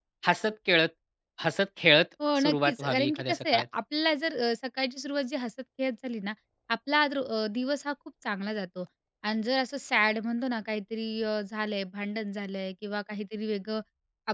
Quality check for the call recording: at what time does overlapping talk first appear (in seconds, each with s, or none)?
2.2 s